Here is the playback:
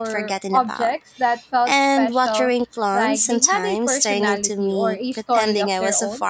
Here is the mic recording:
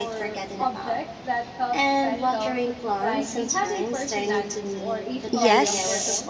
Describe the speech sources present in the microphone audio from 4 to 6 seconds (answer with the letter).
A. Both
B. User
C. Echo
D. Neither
A